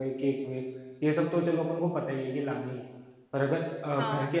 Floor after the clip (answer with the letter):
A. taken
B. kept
B